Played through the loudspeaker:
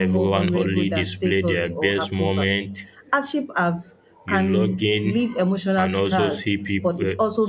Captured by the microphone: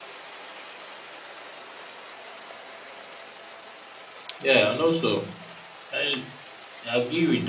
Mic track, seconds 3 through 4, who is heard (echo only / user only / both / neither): neither